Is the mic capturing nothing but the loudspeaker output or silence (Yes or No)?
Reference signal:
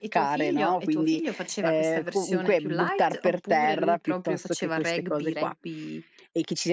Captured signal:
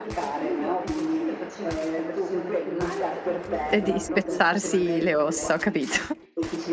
No